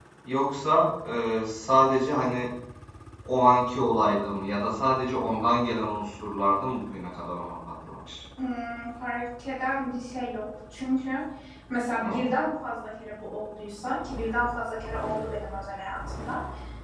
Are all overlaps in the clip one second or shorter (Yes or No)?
Yes